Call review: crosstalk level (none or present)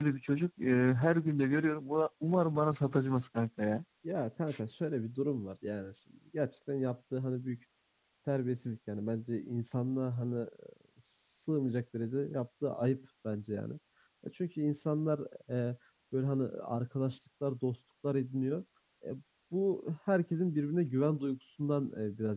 none